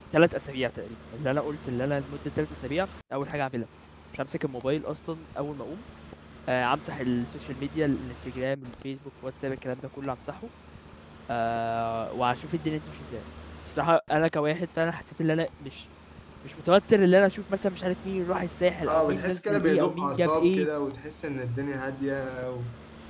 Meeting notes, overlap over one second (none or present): present